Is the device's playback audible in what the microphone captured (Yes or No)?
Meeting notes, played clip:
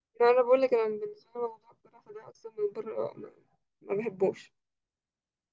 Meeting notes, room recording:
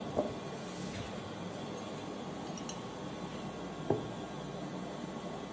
No